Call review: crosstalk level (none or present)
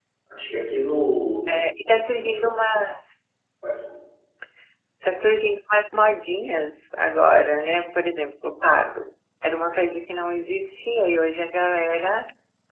none